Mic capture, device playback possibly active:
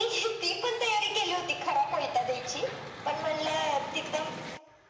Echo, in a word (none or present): present